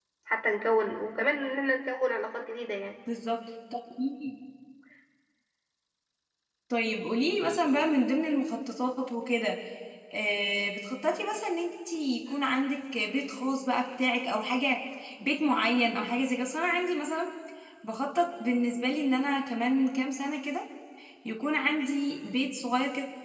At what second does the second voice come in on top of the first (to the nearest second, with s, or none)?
none